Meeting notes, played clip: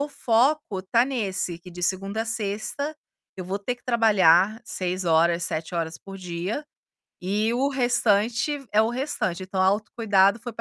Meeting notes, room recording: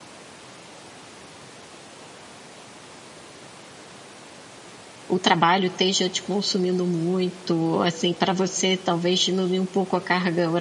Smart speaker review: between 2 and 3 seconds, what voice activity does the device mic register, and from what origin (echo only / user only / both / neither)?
neither